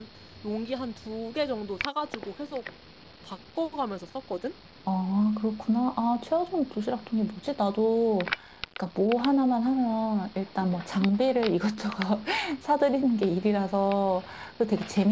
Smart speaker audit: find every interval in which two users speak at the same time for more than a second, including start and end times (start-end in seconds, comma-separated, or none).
none